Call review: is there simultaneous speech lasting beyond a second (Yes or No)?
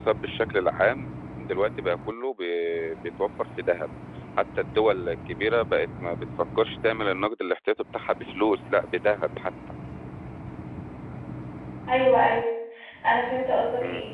No